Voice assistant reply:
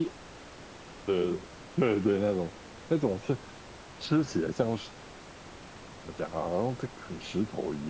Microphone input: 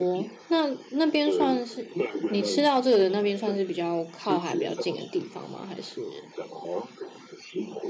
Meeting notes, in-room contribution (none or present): present